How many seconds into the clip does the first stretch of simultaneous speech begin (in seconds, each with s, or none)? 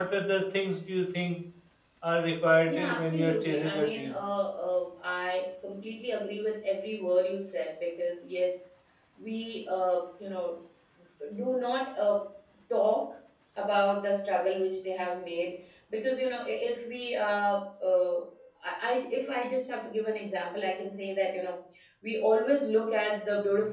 2.7 s